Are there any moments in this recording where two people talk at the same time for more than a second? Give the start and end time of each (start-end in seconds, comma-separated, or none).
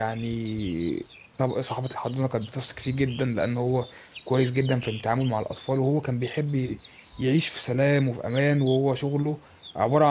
none